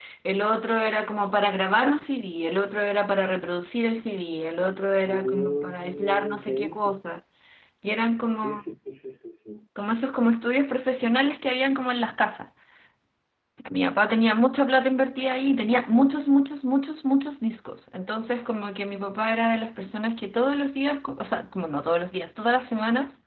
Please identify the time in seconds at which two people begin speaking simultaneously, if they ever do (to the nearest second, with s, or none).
5 s